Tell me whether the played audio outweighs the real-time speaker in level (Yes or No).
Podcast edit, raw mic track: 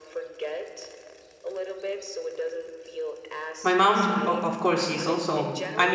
No